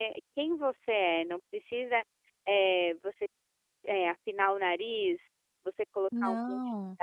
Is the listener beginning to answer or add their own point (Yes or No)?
No